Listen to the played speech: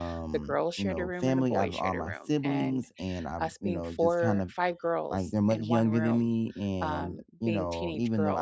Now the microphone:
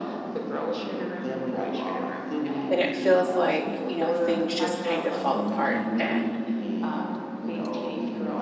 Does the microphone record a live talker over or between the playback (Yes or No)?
Yes